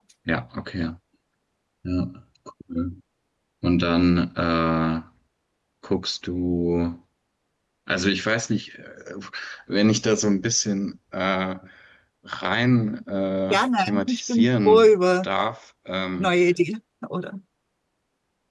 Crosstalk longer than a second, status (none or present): present